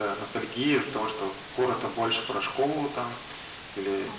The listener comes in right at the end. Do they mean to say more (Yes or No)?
No